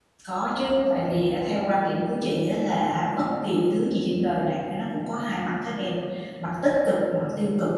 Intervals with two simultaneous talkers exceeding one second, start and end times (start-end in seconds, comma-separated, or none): none